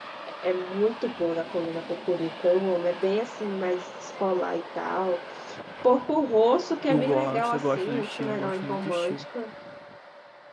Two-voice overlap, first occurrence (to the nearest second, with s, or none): 7 s